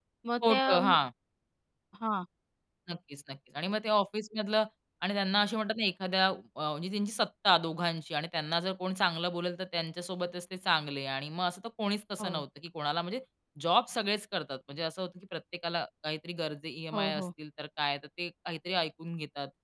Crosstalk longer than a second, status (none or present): none